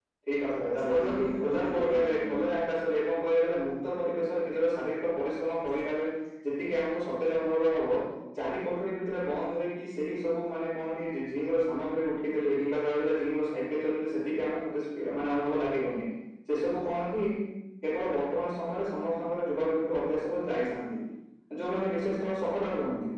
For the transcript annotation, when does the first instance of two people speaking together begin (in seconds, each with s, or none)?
0.8 s